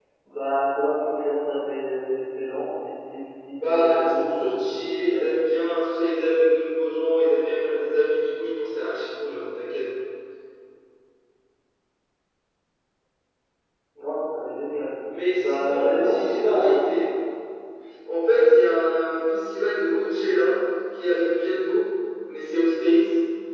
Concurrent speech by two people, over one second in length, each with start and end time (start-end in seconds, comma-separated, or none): 3.5-5.3, 15.3-16.8